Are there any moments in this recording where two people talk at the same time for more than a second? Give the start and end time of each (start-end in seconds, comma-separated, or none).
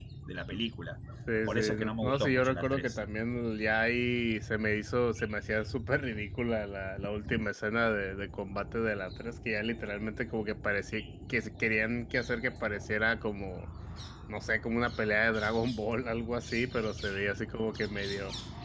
1.5-3.0